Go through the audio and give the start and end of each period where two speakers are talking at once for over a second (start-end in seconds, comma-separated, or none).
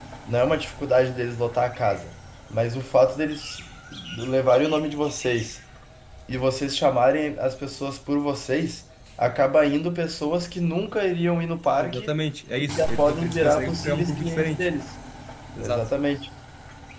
12.6-14.7